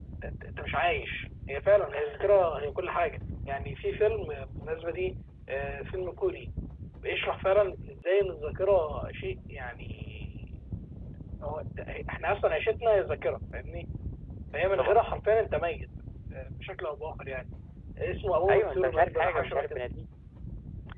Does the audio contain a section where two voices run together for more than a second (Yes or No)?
Yes